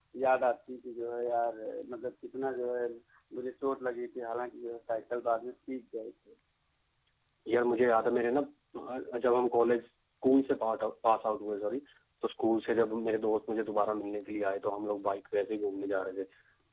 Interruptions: none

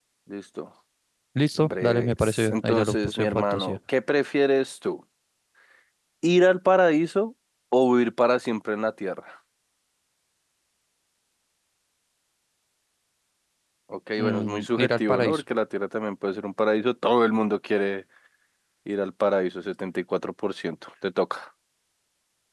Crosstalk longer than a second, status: present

